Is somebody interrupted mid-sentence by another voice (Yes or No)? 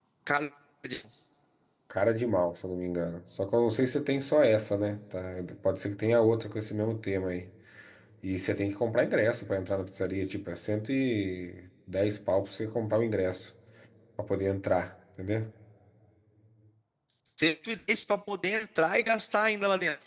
No